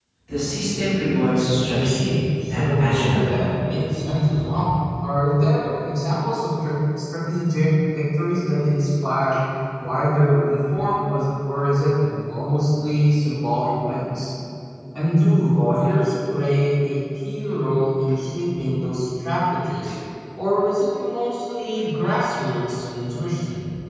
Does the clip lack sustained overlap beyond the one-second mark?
No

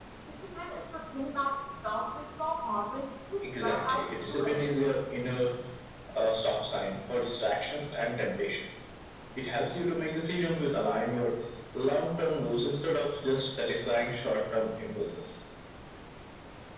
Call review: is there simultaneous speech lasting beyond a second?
Yes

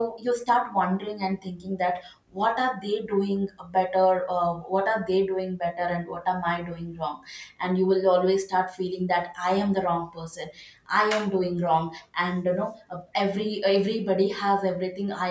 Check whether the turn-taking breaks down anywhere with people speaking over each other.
No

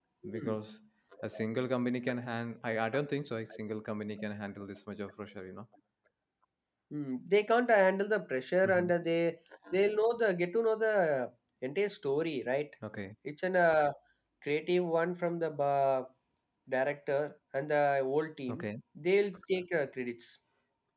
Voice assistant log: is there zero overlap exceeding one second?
Yes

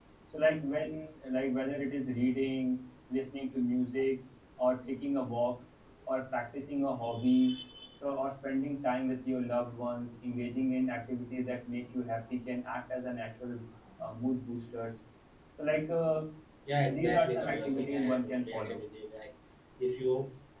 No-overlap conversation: No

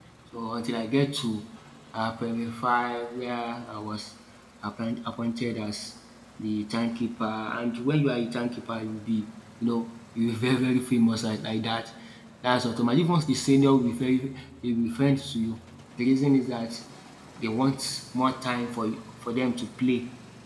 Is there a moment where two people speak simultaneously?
No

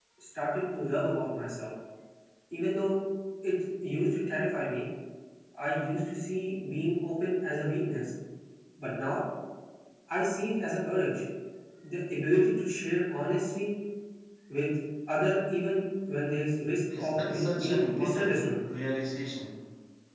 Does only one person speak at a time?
No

